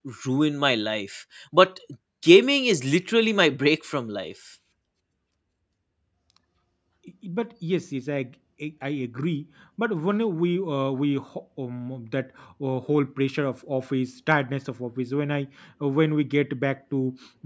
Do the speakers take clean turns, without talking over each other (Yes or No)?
Yes